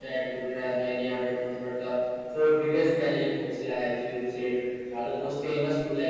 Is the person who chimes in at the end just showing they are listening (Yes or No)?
Yes